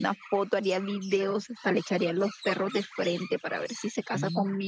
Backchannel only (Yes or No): No